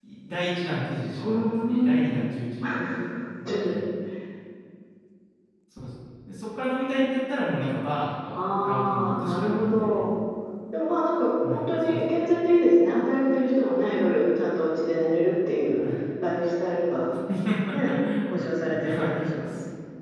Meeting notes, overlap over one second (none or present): present